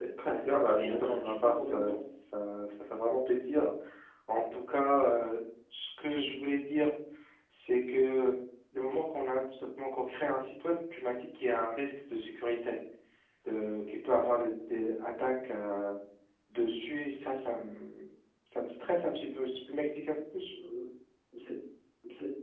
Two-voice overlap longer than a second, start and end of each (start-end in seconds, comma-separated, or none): 0.8-2.0